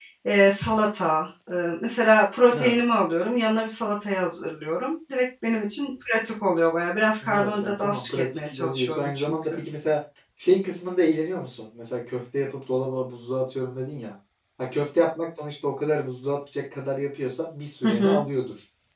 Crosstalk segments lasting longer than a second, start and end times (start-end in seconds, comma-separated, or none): 7.2-9.6